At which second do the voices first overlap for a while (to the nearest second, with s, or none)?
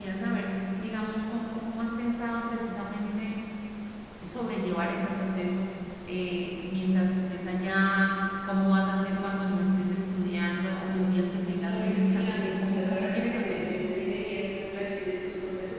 12 s